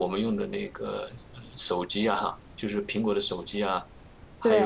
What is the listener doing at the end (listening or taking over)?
listening